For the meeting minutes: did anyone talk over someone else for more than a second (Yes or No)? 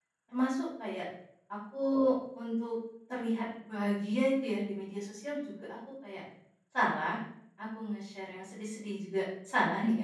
No